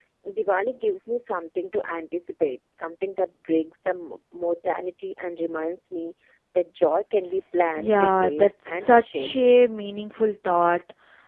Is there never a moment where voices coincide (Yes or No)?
No